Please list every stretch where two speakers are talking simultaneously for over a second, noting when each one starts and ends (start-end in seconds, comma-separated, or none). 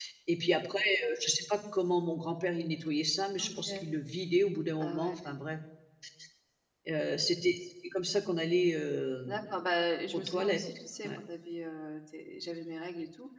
none